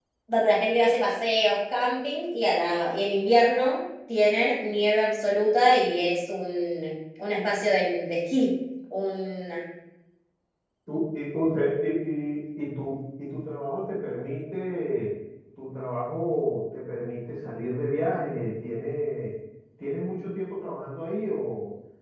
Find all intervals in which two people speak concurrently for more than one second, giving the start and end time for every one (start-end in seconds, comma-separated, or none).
none